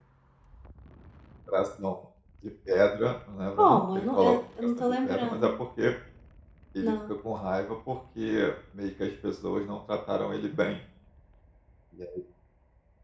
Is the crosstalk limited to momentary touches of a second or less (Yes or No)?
No